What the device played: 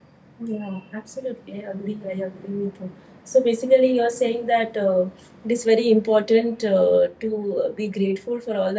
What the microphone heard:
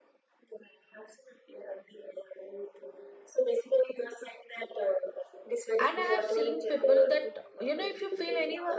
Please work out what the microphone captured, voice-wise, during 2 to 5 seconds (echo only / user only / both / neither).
echo only